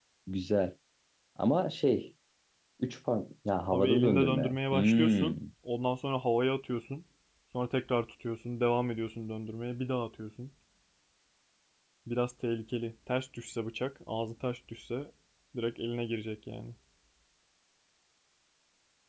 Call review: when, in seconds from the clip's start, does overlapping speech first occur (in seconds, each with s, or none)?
3.7 s